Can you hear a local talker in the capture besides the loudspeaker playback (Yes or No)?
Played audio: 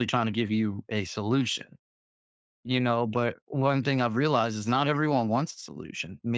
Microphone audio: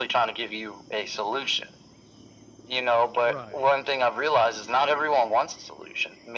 Yes